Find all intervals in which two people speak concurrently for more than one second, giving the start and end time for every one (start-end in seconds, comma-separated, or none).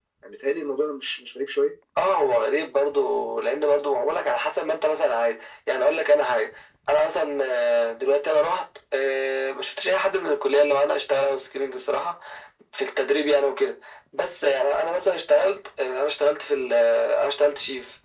none